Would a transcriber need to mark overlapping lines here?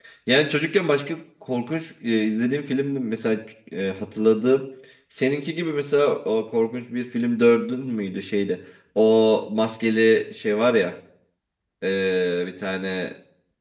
No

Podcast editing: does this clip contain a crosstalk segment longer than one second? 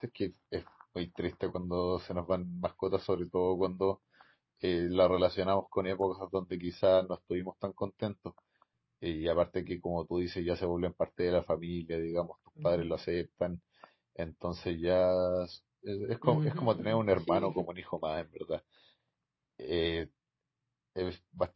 Yes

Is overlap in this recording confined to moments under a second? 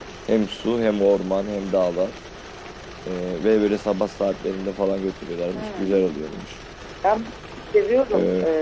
Yes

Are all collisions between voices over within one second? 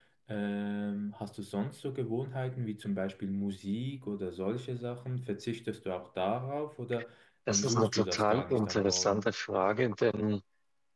No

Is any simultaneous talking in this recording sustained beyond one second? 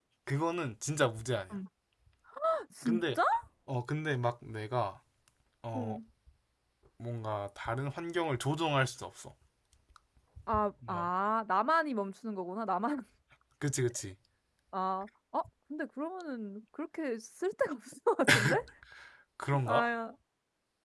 No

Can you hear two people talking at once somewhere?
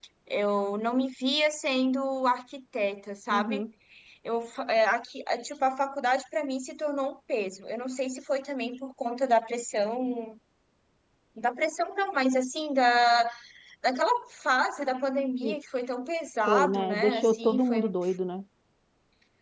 Yes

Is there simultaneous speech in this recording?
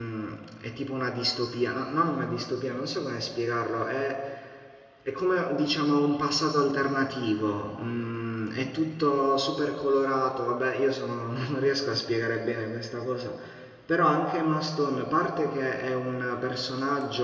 No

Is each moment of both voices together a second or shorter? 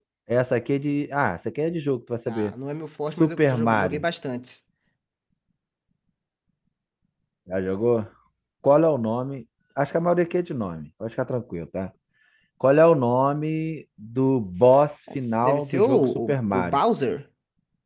No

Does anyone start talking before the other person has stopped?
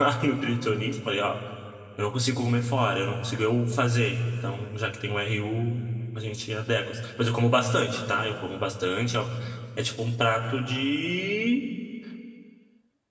No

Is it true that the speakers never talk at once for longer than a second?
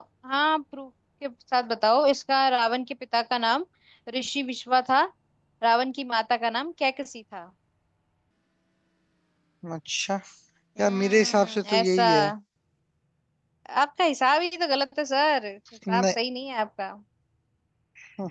No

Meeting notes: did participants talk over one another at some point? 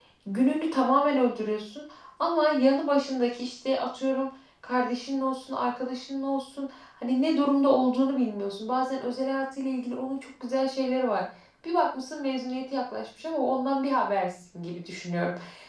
No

